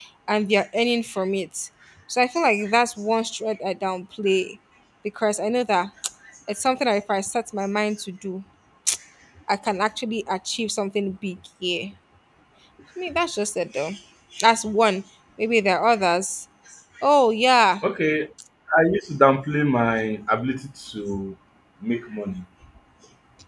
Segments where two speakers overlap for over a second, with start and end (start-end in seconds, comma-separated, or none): none